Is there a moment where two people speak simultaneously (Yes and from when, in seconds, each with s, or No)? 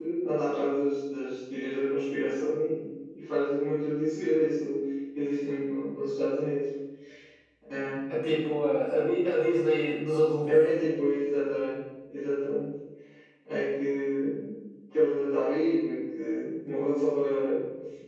No